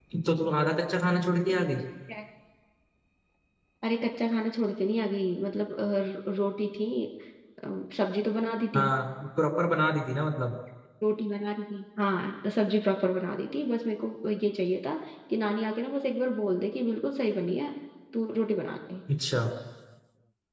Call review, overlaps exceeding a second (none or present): none